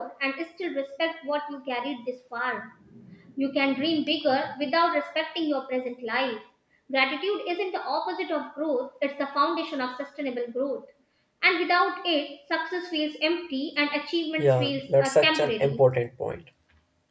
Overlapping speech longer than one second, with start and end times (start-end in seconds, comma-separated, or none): 14.4-15.8